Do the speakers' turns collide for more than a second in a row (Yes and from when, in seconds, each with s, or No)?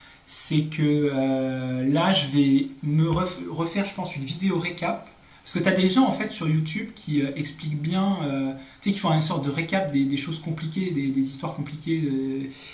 No